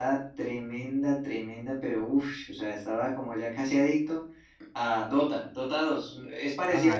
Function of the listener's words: taking over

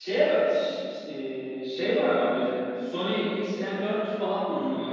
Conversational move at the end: taking over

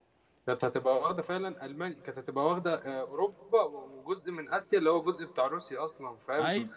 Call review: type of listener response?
listening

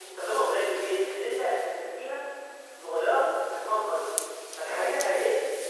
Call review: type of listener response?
listening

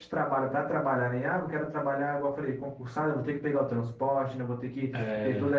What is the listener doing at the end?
listening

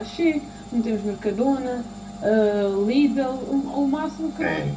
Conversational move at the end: taking over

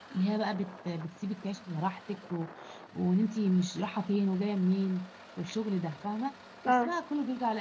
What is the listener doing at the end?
listening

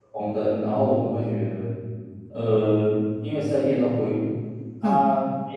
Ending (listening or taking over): listening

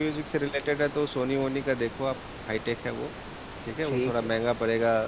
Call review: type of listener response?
listening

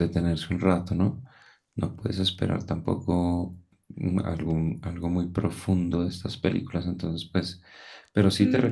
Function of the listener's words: taking over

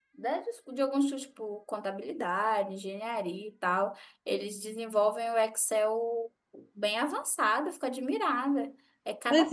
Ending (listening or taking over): taking over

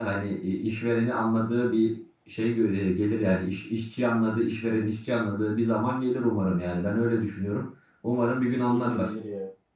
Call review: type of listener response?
taking over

